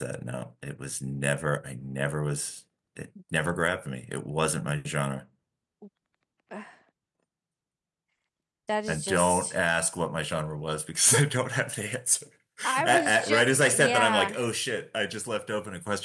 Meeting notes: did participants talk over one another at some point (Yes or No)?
Yes